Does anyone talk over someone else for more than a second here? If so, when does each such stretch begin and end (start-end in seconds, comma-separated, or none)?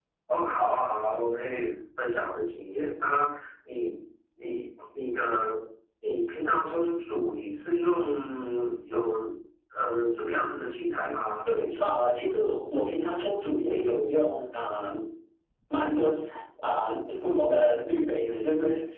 none